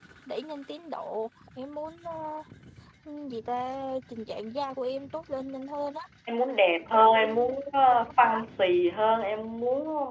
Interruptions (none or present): none